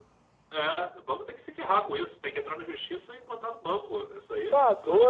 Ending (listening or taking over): taking over